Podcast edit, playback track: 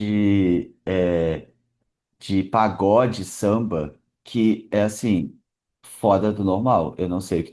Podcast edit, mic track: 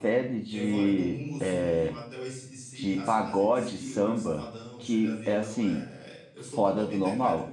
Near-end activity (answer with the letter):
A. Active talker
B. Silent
A